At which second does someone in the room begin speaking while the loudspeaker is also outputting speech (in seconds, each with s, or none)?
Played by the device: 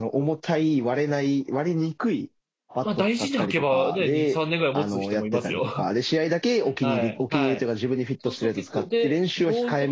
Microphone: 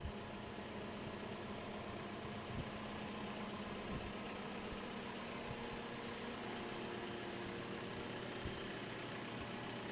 none